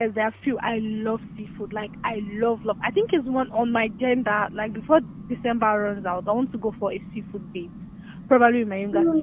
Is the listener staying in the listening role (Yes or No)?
Yes